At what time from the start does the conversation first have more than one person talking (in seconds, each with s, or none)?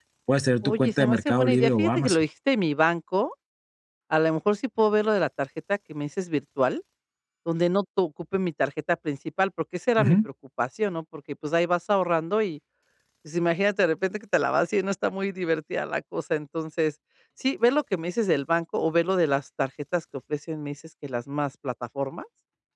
0.6 s